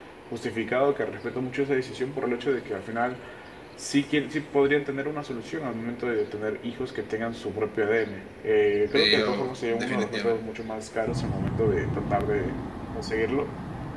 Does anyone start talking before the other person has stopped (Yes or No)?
Yes